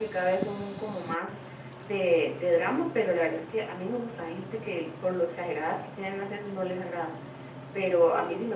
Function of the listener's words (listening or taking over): listening